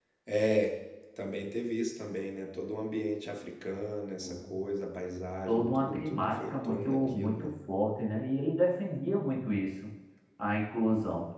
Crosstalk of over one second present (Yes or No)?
Yes